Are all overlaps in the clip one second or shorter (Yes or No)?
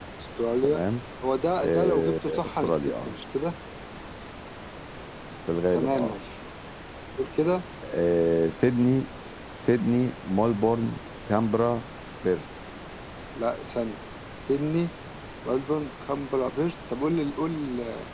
No